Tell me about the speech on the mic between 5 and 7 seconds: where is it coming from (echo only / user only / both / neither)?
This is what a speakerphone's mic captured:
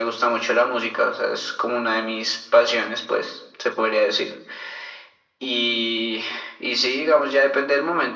echo only